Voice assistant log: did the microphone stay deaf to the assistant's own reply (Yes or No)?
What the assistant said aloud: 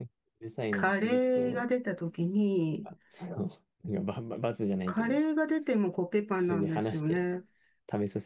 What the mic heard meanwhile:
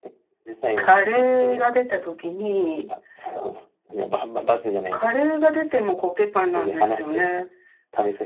No